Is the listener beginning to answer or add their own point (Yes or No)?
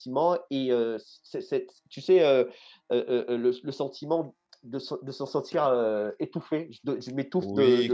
Yes